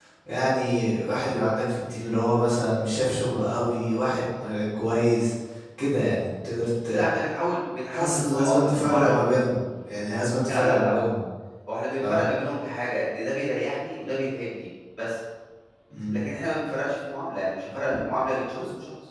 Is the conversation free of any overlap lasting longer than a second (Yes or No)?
No